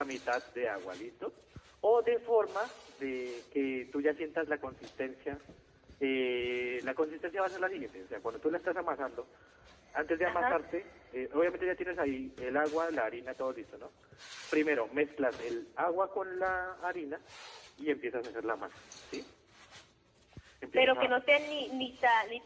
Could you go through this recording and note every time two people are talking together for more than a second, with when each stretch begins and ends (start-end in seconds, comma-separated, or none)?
none